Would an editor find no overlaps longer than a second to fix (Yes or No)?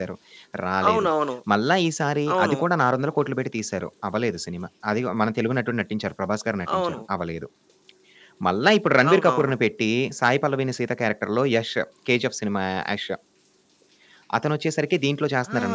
Yes